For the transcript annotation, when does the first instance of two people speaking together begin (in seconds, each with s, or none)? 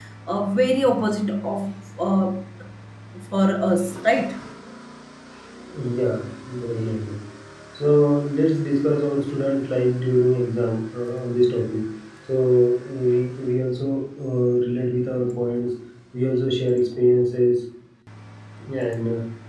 none